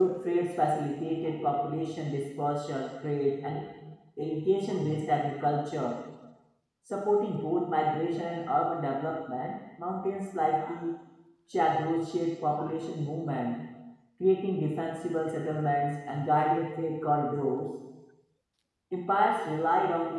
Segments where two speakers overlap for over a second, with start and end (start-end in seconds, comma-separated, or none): none